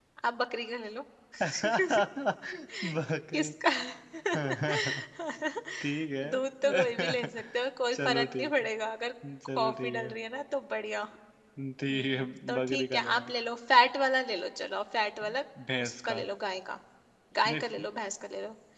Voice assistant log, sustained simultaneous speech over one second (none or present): present